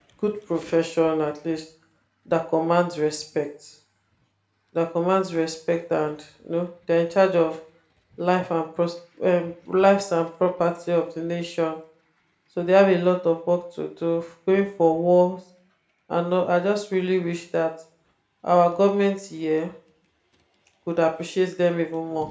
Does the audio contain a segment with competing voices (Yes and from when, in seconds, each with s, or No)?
No